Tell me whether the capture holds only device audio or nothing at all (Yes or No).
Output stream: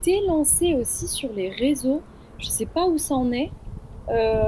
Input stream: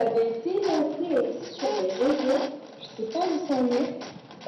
Yes